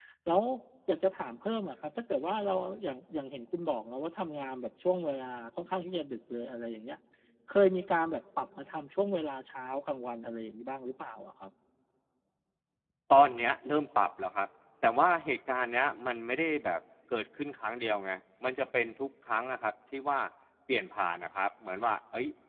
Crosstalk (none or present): none